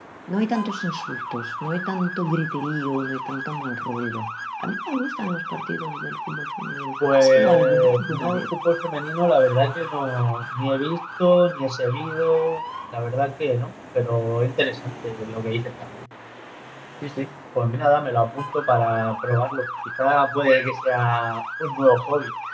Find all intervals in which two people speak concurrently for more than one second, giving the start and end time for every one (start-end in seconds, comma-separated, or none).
7.1-8.4